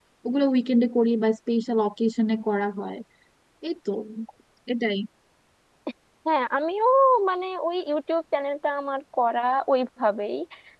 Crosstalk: none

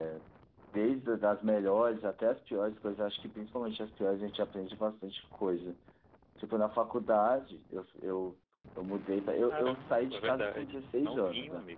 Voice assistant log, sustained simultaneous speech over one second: present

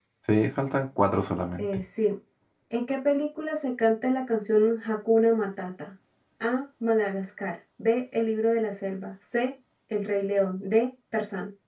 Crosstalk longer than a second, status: none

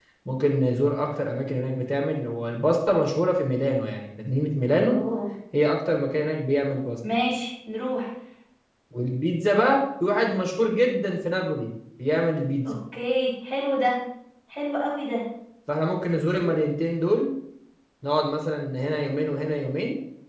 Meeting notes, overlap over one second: none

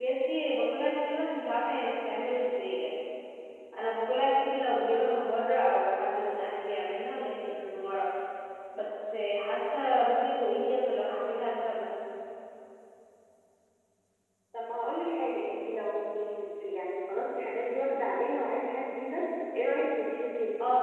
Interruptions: none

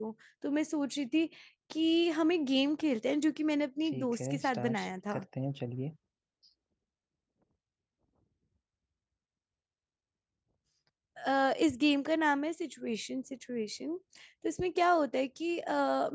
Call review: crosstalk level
present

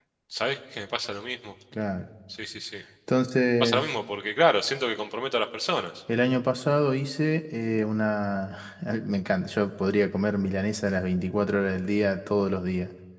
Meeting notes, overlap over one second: none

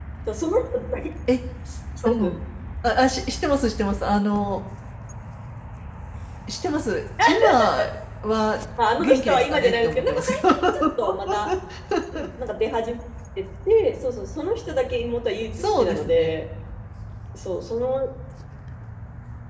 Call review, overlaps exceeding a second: present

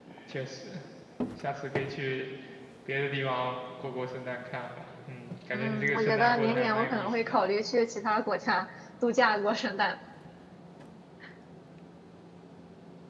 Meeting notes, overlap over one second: present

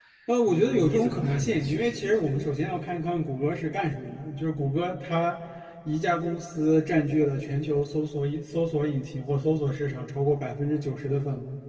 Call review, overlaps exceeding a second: present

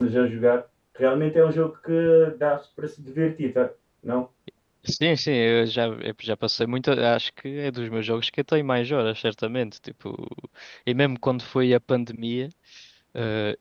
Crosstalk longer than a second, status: none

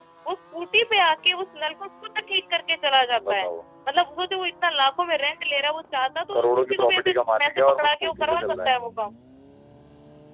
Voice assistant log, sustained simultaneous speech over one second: present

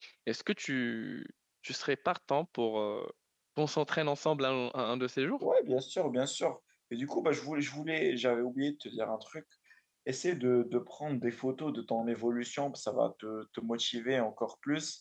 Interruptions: none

